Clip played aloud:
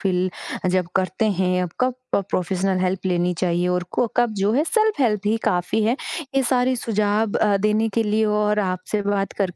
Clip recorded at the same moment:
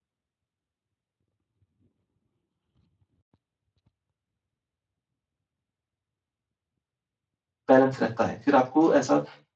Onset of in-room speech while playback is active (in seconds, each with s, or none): 7.7 s